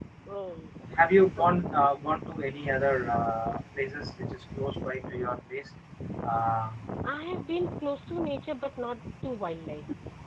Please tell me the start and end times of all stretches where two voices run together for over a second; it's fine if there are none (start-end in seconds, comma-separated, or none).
none